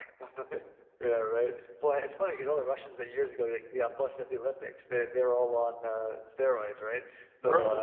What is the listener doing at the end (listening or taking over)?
listening